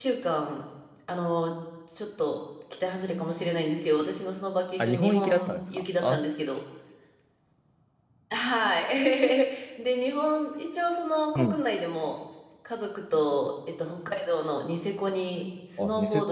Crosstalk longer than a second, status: present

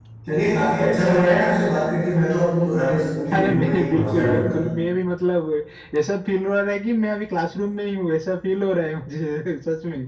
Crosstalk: present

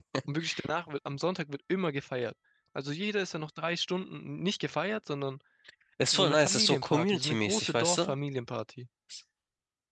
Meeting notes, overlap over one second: present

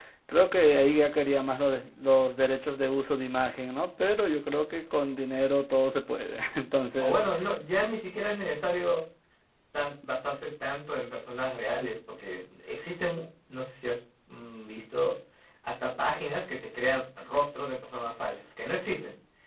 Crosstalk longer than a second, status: none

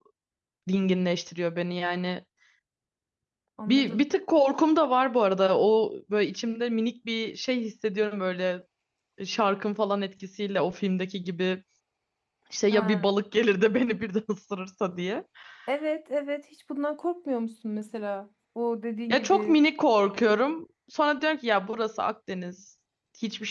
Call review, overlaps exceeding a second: none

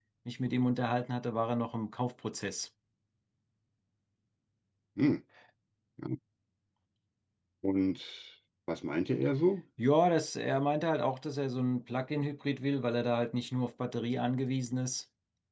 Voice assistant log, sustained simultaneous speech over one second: none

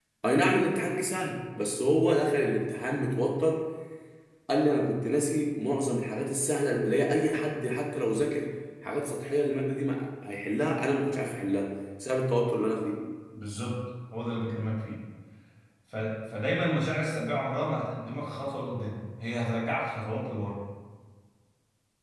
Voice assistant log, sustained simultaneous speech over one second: none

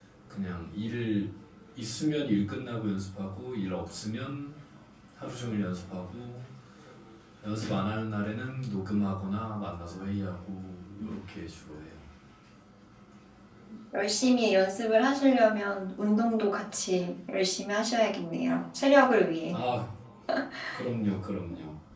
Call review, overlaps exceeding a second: none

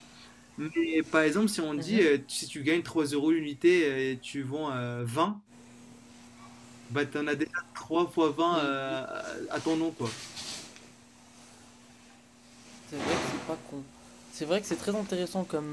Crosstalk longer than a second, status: none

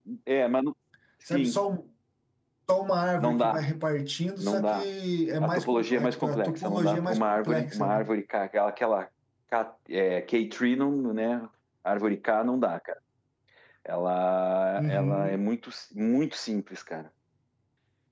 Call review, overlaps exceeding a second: present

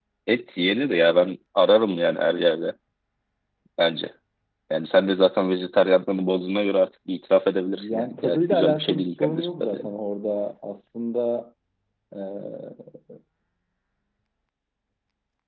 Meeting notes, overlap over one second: present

